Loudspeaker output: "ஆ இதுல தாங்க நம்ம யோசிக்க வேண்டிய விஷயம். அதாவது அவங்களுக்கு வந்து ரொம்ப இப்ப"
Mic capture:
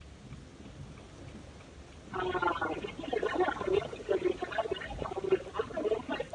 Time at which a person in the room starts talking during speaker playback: none

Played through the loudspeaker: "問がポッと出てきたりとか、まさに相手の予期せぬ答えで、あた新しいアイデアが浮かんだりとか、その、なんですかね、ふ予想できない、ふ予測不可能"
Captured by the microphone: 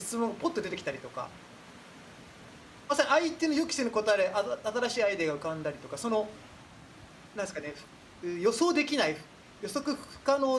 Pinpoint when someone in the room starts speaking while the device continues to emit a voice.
none

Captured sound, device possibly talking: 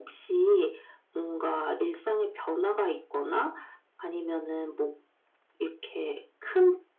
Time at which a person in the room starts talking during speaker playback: none

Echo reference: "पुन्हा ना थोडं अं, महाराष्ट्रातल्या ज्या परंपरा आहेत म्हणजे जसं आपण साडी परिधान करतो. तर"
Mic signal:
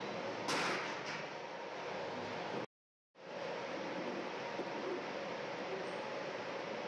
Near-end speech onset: none

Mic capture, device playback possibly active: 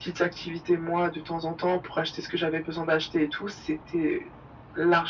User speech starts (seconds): none

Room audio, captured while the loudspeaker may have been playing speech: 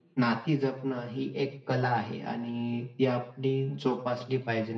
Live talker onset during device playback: none

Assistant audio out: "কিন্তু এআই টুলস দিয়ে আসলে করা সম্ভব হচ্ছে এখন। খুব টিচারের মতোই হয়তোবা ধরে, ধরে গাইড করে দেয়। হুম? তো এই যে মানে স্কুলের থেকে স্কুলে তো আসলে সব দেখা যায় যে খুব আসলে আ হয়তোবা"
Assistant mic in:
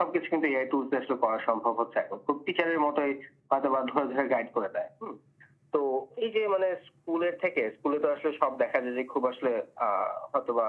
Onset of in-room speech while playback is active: none

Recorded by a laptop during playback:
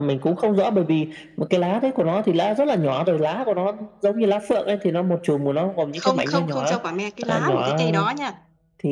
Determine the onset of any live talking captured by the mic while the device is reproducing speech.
6.0 s

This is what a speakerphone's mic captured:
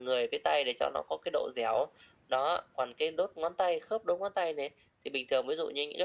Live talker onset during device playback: none

